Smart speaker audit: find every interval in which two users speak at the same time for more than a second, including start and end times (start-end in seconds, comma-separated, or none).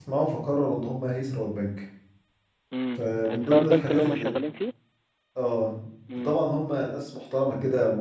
3.0-4.3